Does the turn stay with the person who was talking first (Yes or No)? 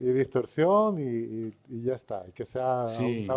No